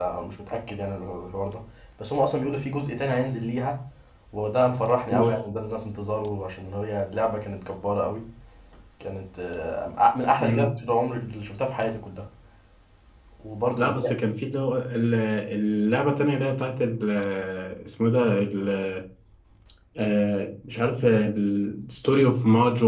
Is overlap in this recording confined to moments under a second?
Yes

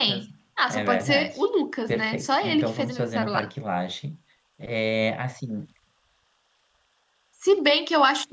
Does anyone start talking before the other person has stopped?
Yes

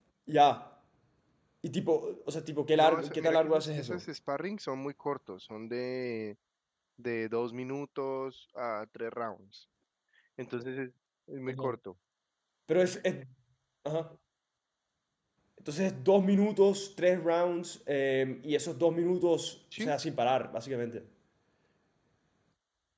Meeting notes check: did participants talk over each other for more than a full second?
Yes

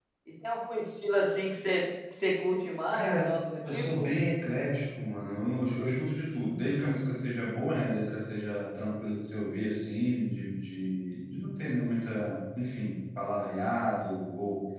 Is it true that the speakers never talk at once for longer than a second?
Yes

